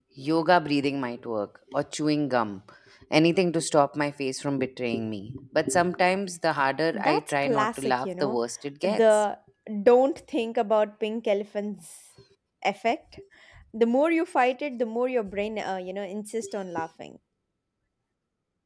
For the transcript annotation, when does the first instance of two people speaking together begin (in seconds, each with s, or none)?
6.9 s